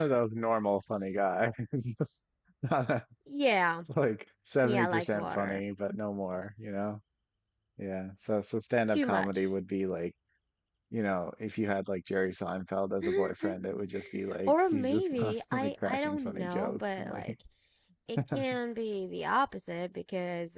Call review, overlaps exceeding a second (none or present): present